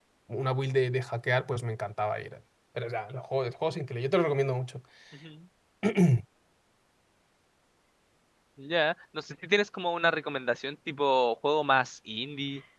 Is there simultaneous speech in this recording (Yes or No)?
No